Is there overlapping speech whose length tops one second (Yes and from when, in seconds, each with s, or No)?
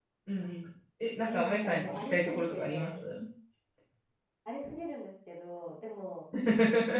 Yes, from 1.3 s